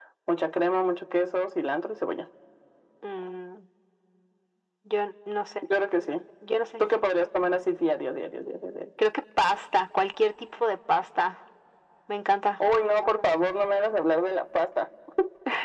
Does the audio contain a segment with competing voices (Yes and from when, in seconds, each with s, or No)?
No